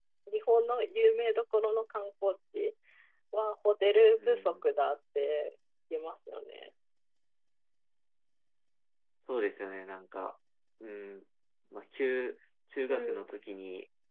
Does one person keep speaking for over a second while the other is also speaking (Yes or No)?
No